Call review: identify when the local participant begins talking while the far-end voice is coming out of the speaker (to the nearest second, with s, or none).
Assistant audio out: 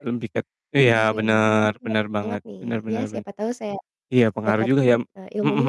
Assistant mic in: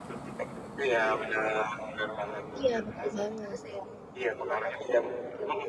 3 s